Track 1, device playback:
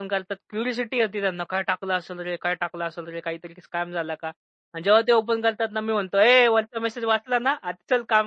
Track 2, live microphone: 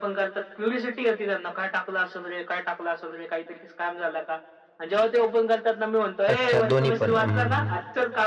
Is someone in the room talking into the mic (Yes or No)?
Yes